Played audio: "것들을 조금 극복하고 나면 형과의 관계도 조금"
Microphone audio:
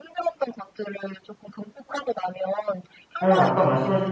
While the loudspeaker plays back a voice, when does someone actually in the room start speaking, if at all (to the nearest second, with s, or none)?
3 s